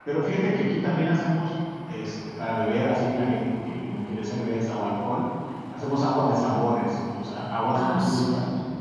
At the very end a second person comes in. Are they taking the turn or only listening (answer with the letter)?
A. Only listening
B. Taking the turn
B